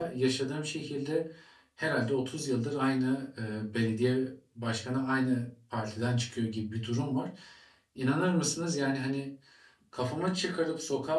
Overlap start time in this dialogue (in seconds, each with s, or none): none